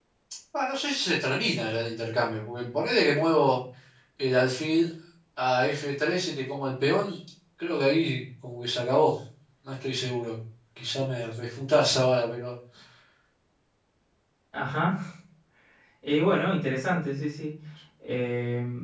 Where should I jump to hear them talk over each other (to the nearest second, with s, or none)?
none